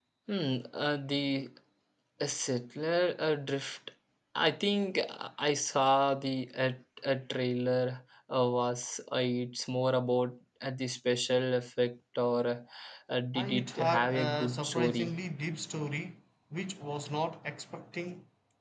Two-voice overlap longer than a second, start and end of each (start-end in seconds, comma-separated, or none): 13.3-15.2